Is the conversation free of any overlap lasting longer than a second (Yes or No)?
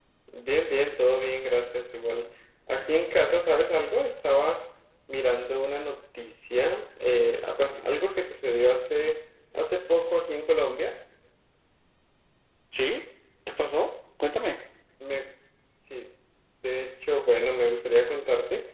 Yes